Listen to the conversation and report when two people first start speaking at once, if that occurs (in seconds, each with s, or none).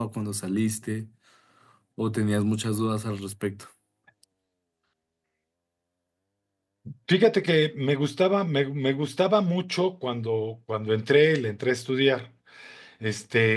none